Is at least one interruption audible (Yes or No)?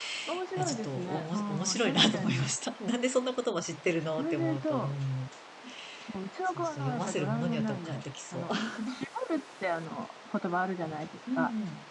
Yes